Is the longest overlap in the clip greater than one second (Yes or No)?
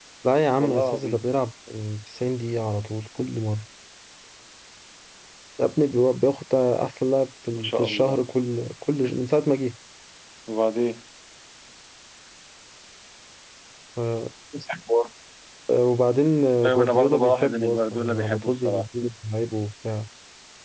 Yes